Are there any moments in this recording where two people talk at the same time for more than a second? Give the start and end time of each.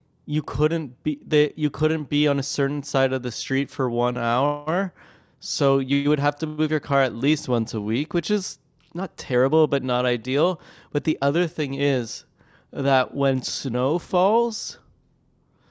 none

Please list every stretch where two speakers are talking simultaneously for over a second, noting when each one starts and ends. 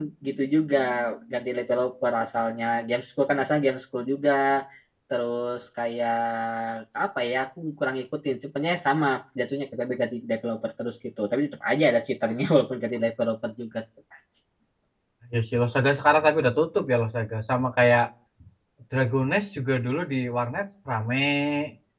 none

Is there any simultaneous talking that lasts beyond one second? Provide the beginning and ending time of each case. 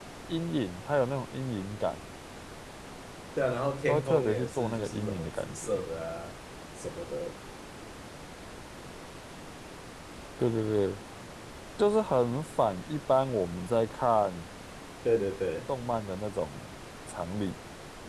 3.9-5.7

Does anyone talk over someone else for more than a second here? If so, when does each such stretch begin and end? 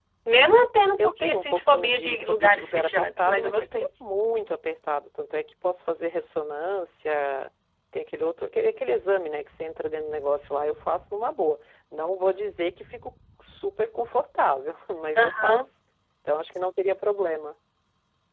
1.0-3.6

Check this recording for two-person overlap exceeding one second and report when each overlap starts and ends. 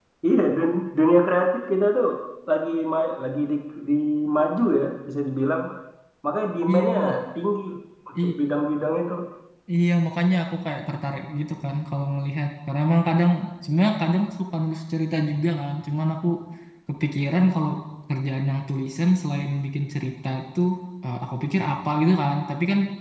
none

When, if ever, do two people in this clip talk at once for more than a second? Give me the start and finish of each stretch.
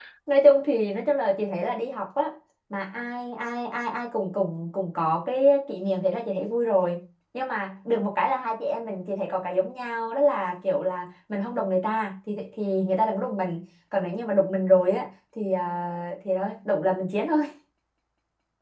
none

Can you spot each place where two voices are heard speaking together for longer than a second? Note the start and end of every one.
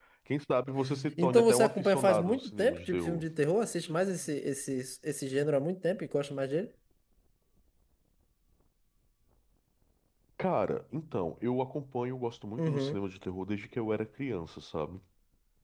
1.2-3.2

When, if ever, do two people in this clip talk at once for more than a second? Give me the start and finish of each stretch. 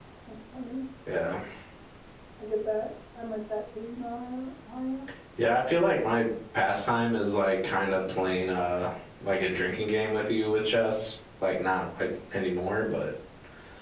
none

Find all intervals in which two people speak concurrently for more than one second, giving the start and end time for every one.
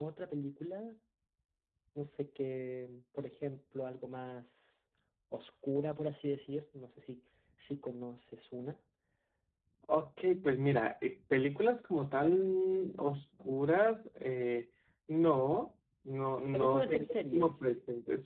16.4-17.7

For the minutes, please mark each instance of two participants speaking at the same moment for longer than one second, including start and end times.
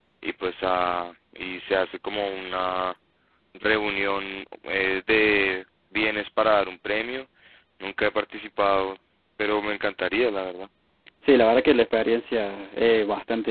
none

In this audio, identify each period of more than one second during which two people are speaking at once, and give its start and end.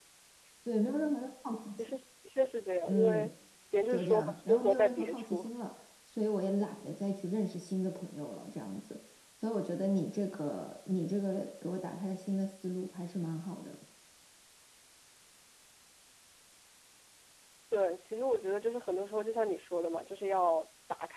3.9-5.5

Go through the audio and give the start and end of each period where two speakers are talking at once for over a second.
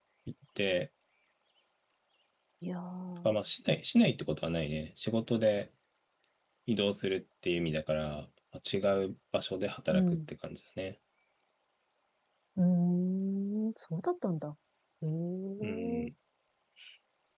none

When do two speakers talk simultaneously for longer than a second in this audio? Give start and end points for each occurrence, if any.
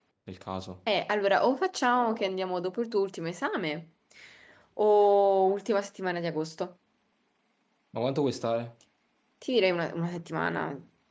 none

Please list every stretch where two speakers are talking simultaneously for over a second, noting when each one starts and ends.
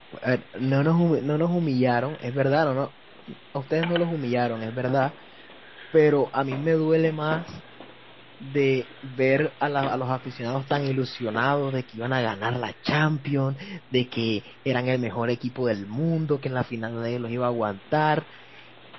none

